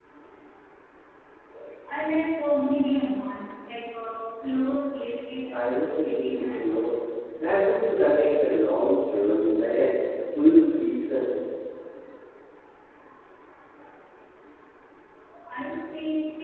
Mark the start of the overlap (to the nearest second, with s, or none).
6 s